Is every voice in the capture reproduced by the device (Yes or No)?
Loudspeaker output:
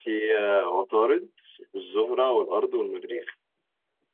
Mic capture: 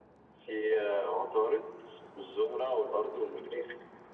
Yes